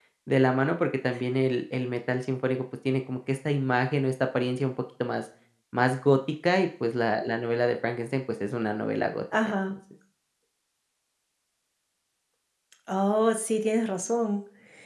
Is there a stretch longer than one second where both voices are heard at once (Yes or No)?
No